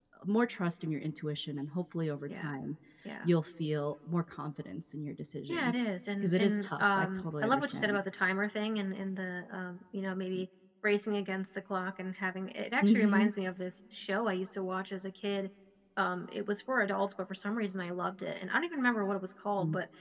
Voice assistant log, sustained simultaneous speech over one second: present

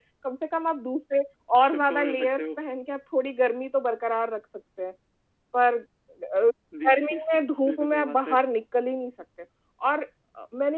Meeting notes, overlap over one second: present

